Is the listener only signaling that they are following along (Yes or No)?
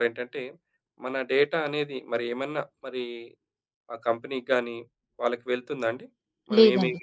Yes